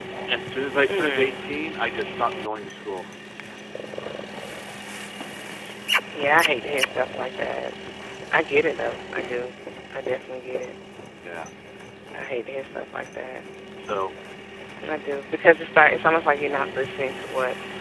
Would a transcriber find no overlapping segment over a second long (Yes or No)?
Yes